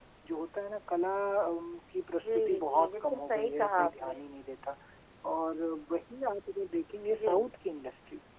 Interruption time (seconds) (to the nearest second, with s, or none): 2 s